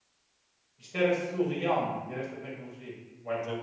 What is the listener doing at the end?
taking over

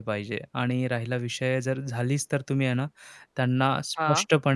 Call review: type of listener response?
listening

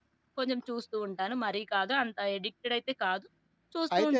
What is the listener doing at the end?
listening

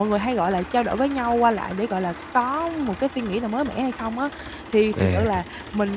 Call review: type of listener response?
listening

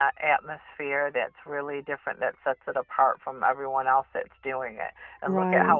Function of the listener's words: listening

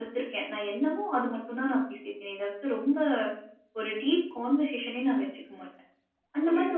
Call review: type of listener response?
taking over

